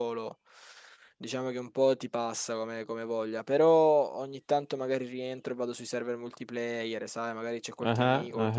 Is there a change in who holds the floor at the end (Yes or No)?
No